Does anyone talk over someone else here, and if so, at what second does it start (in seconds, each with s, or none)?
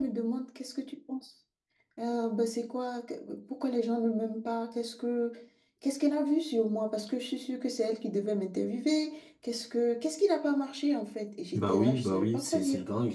11.5 s